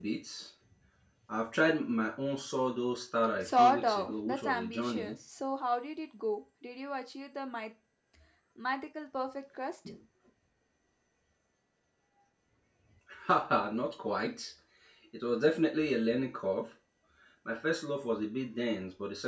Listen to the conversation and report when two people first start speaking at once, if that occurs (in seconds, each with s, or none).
3.4 s